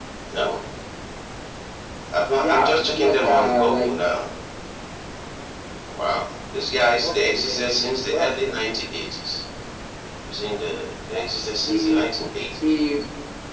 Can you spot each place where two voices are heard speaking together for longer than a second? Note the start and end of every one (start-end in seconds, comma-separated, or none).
2.4-3.9, 7.0-8.3